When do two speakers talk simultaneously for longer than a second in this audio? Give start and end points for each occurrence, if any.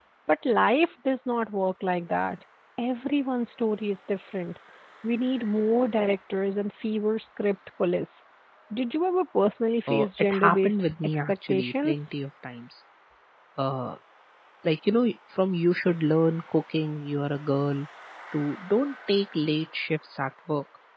9.9-12.1

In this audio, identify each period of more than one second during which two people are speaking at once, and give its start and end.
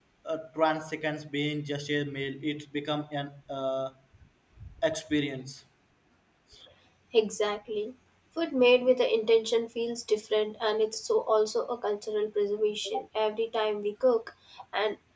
none

